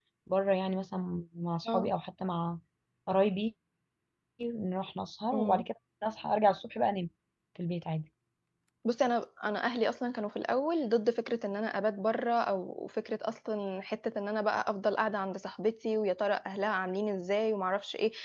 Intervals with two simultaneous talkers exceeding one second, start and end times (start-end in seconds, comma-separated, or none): none